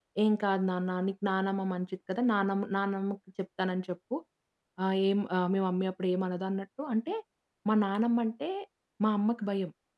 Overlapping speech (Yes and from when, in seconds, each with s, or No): No